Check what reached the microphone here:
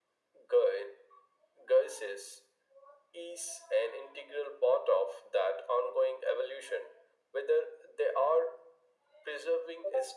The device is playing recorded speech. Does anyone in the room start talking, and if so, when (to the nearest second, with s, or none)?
none